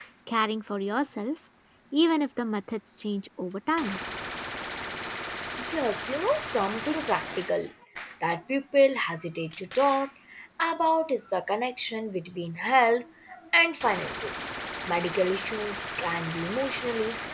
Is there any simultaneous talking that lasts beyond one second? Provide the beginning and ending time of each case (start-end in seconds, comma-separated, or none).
none